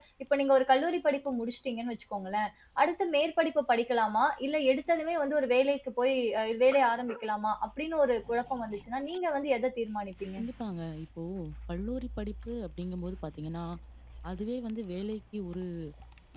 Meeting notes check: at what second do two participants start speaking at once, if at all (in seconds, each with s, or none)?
none